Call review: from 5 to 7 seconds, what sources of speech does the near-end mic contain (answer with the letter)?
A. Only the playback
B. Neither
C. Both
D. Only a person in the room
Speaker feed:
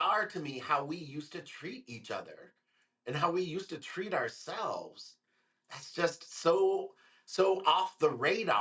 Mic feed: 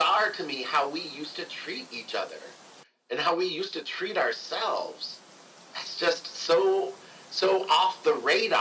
A